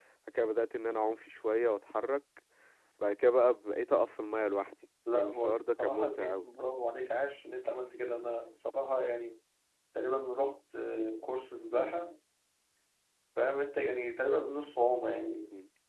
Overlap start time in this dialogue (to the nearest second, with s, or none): 5 s